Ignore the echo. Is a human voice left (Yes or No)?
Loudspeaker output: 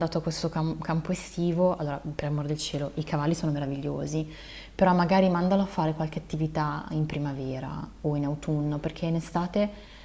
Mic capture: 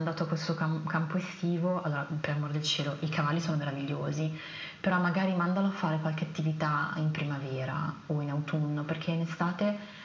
No